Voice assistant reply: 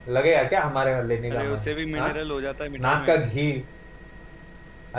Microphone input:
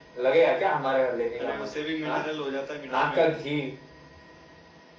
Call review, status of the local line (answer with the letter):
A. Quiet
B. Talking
A